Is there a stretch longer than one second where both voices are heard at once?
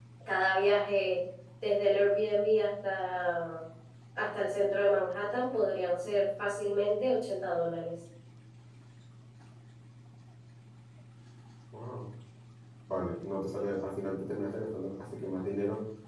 No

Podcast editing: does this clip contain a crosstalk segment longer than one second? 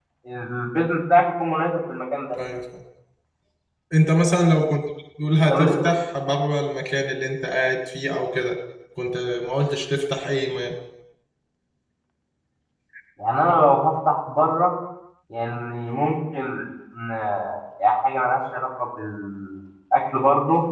No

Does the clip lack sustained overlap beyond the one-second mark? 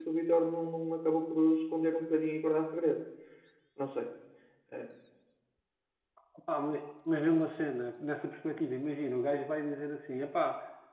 Yes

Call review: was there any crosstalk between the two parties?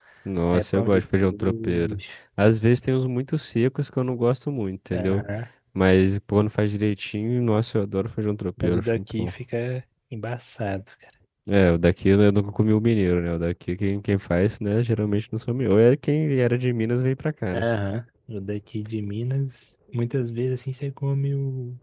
Yes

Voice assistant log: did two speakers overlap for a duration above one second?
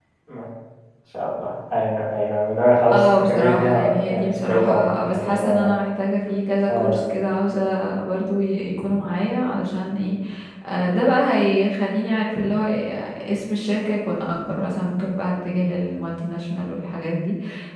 Yes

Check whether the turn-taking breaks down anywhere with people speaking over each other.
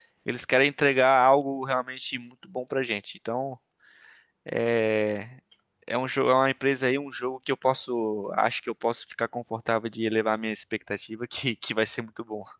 No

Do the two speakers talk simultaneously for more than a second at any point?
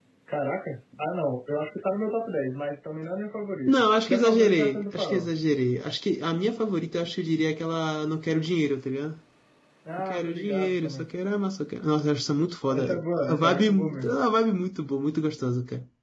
Yes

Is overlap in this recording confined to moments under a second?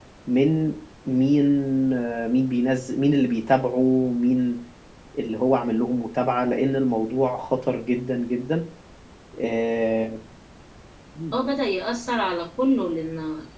Yes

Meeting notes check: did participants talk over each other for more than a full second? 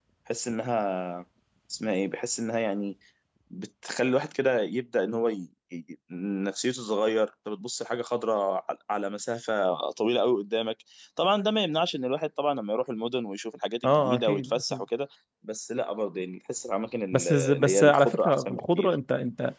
Yes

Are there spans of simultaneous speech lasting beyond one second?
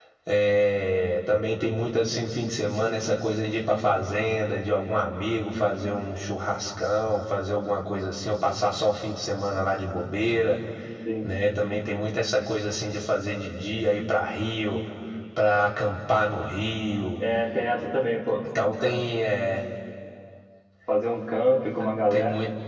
No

